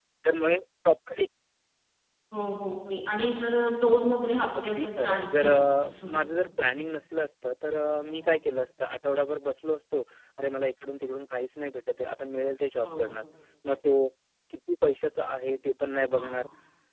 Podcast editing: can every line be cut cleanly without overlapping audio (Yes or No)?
No